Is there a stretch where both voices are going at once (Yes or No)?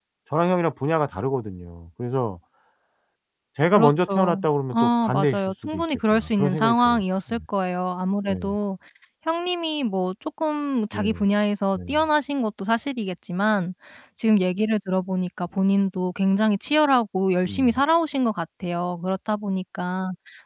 Yes